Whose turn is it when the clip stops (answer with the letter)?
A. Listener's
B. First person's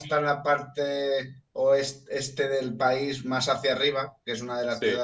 B